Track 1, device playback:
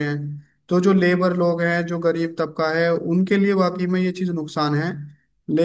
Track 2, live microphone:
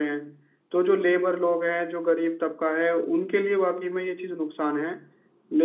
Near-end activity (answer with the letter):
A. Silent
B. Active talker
A